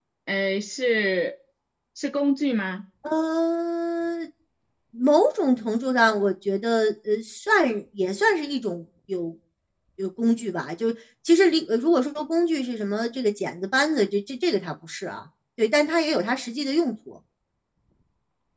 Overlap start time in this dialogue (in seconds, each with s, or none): none